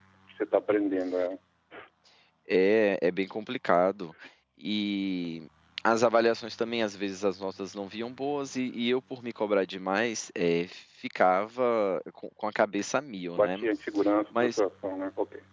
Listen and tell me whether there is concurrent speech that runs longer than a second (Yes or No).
No